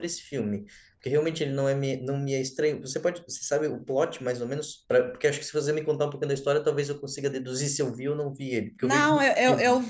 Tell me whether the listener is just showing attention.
No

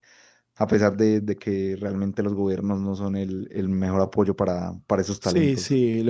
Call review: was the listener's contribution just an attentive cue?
No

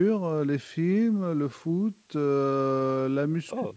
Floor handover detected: No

